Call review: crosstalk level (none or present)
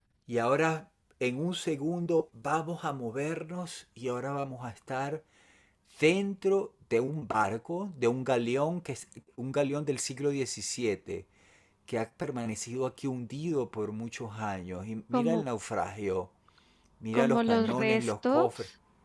present